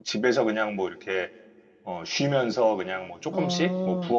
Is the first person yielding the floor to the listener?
No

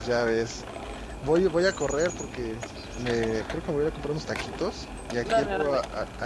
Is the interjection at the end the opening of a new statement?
No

